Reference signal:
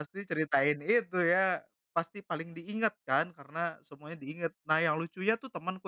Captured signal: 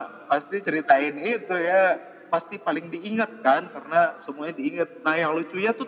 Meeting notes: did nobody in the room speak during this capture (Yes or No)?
Yes